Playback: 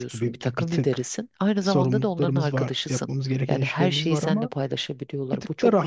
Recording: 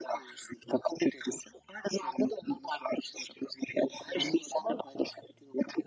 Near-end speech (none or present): none